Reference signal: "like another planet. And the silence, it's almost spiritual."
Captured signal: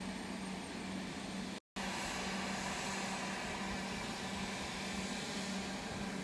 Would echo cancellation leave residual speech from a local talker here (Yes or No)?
No